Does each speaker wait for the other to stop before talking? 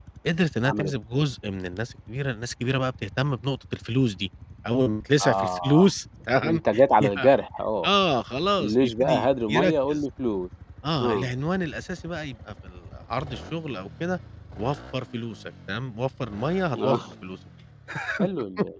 No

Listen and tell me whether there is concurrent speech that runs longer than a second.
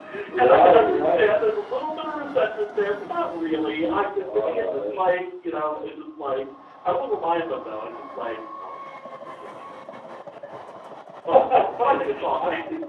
Yes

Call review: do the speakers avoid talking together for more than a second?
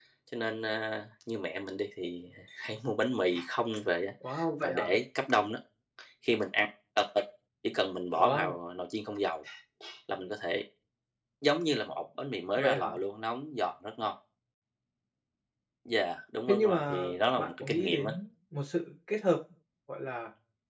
No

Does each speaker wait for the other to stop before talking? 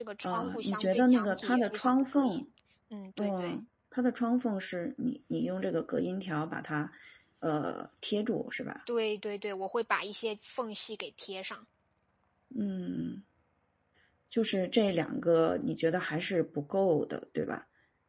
No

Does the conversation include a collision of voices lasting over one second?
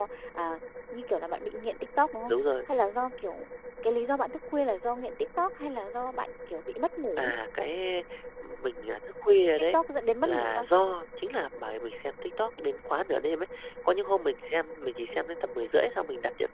No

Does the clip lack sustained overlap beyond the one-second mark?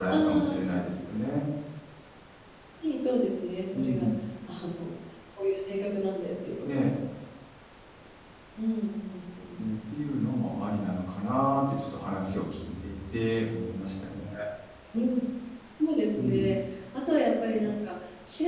Yes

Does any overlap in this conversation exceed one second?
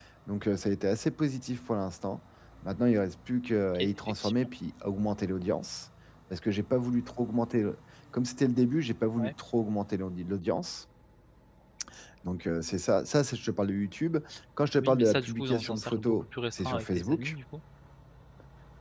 Yes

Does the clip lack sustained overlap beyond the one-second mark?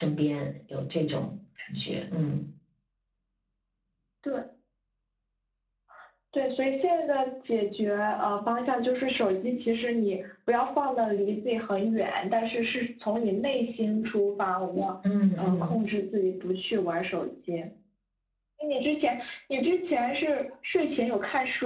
Yes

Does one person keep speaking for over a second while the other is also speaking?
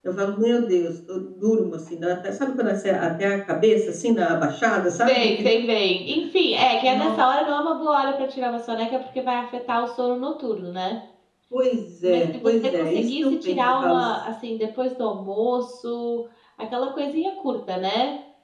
Yes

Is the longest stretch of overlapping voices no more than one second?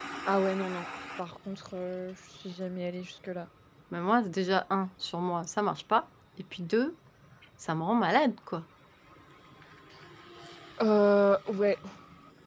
Yes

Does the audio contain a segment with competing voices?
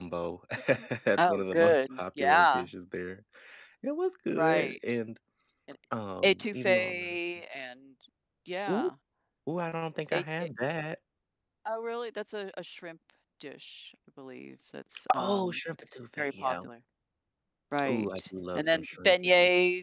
Yes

